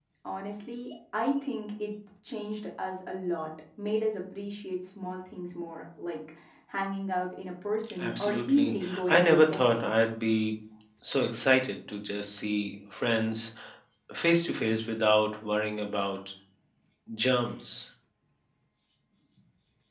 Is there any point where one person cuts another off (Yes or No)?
Yes